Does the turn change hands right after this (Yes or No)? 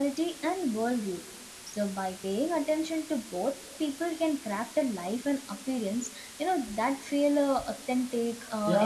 Yes